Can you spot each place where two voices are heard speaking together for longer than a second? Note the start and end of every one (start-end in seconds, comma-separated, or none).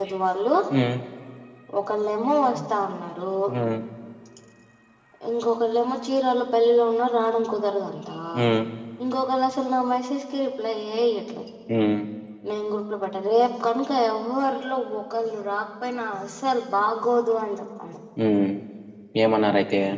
none